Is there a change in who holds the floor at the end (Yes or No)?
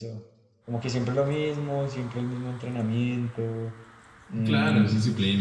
Yes